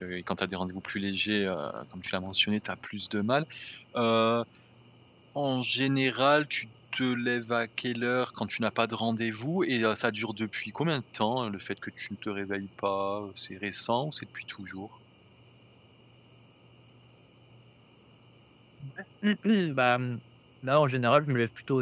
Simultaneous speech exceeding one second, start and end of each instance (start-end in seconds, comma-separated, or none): none